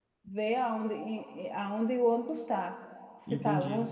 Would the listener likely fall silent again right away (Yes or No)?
Yes